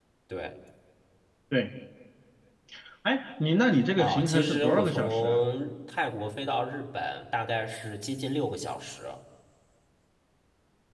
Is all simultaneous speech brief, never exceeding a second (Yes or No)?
No